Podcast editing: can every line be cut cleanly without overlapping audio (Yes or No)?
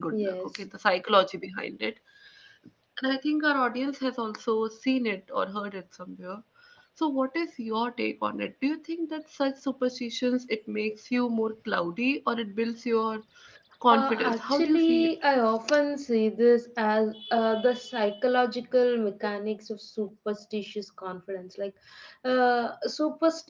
No